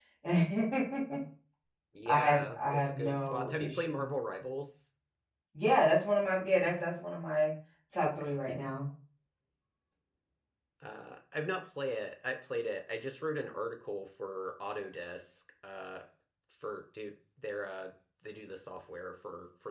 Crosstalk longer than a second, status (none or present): present